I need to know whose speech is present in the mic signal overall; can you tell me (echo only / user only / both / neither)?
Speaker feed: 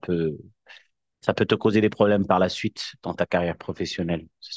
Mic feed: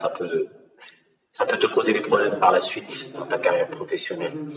both